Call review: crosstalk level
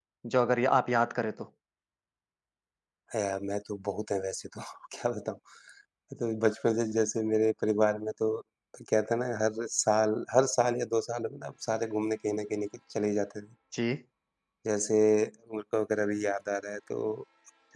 none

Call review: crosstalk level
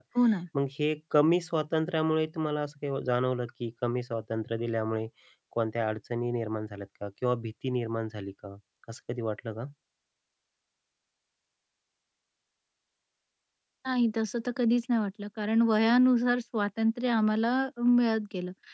none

